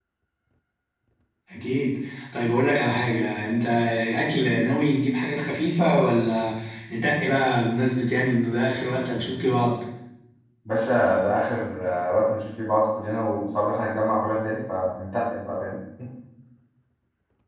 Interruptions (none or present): none